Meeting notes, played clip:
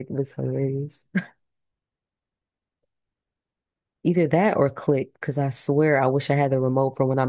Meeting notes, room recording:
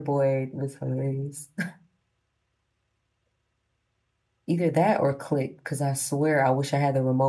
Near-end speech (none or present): none